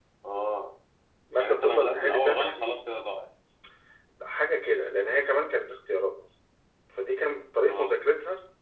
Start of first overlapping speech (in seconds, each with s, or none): 1.4 s